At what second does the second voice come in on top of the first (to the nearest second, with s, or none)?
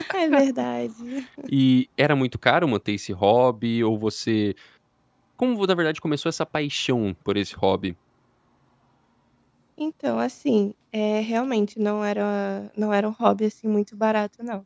none